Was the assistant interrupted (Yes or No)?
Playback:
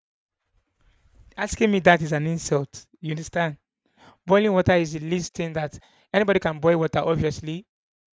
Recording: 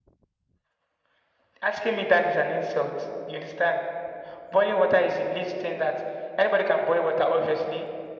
No